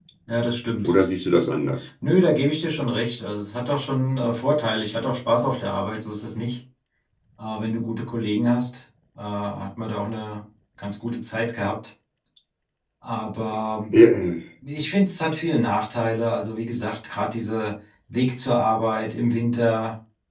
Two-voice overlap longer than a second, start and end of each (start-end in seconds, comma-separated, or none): none